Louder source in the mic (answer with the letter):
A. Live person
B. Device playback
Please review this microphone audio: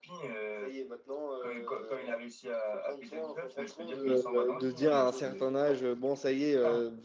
A